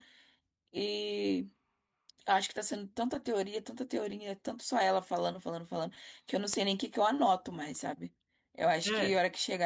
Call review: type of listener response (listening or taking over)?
listening